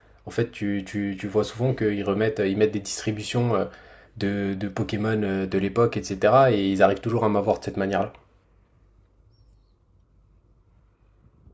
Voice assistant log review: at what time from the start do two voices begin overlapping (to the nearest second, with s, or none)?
none